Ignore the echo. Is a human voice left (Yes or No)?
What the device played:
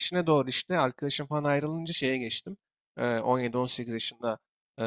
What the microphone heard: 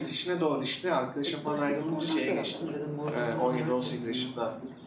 Yes